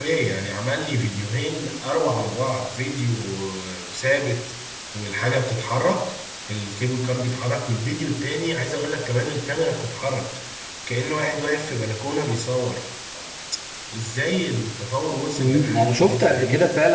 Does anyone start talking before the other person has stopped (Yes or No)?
Yes